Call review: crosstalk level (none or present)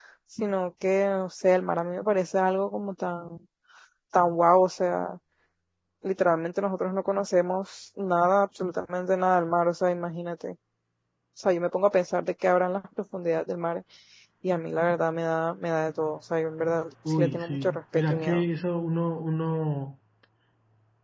present